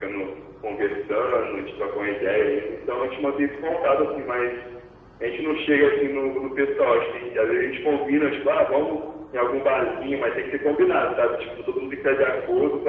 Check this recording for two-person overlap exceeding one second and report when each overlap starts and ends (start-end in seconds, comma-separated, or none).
none